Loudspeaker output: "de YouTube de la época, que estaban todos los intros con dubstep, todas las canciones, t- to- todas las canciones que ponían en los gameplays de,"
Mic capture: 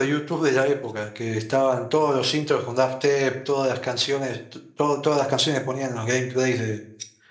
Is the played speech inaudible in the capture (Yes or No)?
No